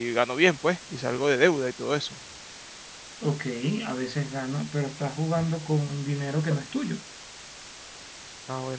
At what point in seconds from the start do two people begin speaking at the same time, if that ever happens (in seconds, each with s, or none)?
none